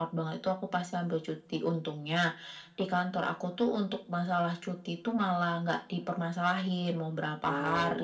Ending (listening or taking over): listening